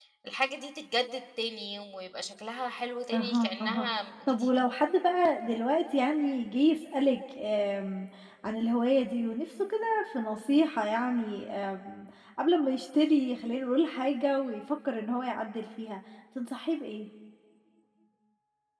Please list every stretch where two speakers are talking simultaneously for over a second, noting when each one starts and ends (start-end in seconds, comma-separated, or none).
3.1-4.5